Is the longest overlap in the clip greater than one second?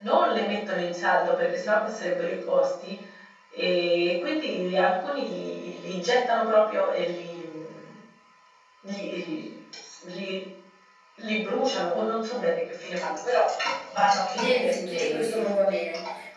Yes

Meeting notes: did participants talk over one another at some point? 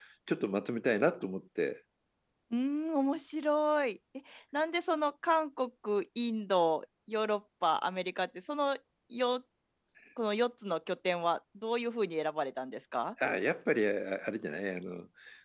No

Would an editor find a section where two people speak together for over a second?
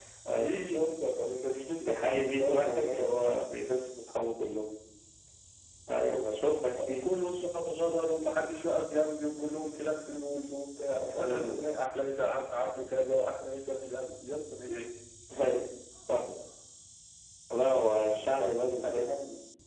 Yes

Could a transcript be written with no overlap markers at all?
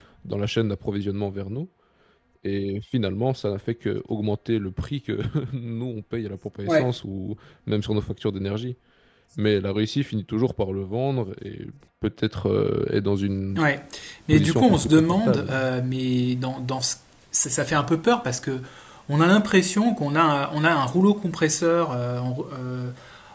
No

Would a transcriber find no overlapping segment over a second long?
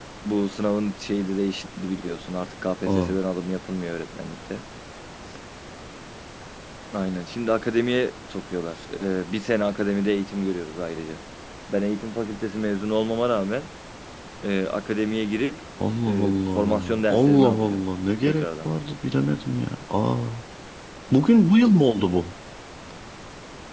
No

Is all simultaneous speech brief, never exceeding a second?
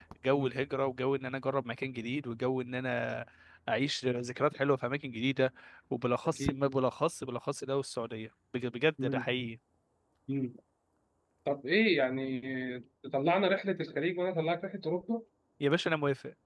Yes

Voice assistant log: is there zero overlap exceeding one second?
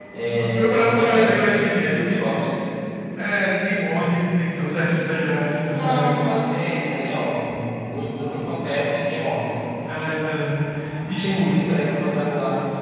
No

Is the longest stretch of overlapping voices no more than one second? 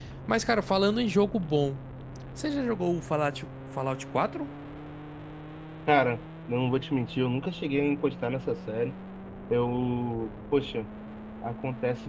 Yes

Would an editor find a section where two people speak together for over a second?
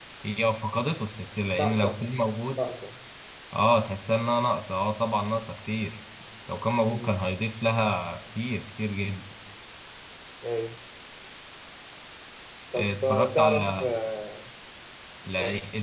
Yes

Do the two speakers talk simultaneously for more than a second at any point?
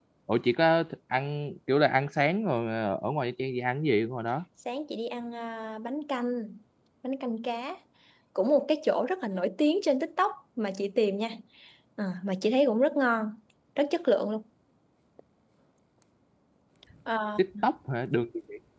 No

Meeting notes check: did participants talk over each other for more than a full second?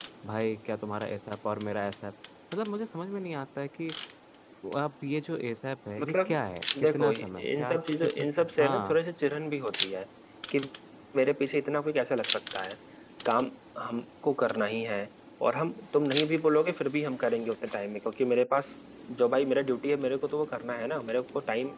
Yes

